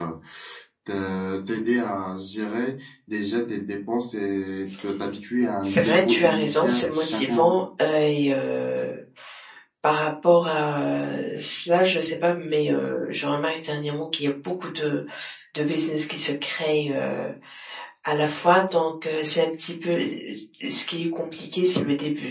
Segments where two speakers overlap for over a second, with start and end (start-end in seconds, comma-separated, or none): 5.6-7.5